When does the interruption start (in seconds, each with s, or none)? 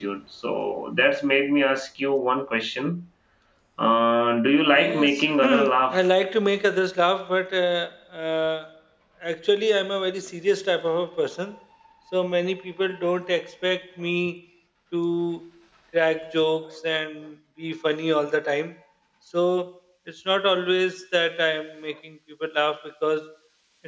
4.7 s